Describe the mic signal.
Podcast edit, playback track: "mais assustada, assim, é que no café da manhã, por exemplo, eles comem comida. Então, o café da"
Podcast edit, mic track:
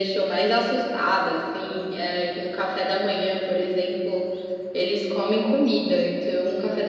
echo only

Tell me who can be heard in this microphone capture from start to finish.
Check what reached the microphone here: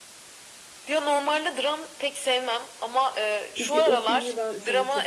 both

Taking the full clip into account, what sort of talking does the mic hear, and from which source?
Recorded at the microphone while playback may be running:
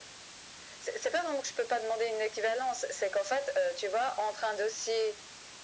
echo only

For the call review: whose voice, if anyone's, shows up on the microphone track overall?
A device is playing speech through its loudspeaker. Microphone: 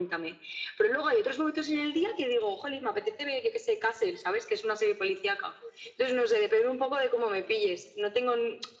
echo only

